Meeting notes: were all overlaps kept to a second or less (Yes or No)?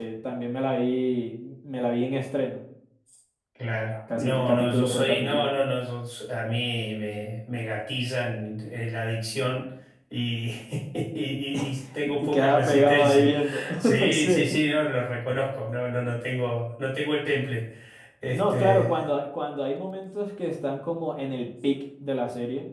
No